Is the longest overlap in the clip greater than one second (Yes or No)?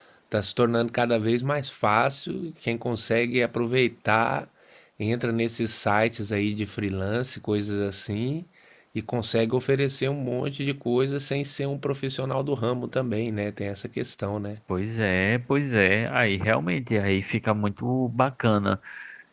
No